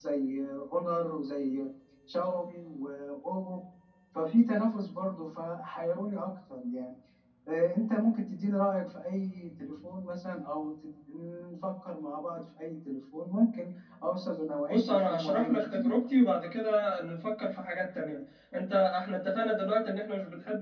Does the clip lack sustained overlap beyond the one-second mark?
No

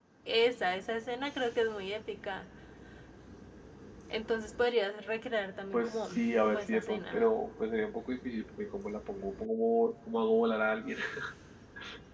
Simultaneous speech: Yes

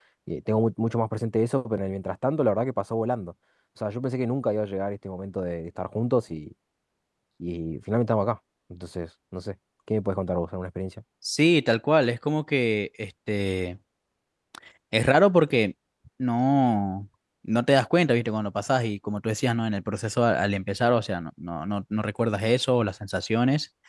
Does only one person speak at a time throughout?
Yes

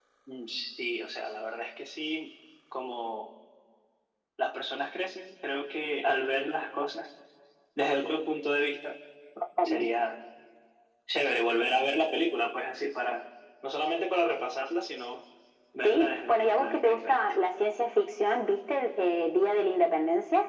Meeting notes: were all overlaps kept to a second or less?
No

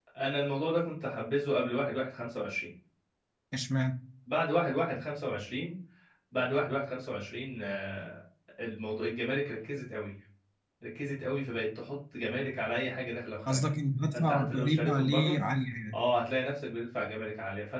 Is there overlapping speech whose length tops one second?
Yes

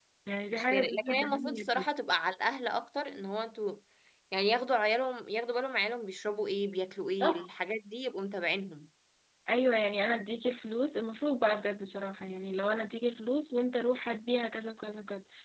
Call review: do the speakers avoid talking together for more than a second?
No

